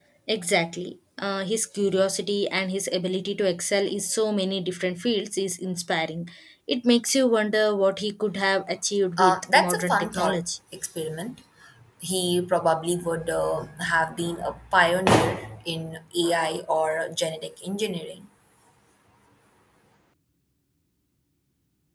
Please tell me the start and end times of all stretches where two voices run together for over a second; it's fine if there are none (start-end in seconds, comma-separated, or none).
9.2-10.4